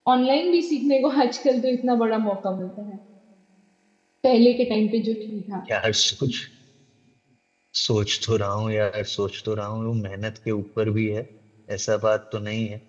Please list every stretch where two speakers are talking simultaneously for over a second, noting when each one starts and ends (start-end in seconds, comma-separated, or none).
none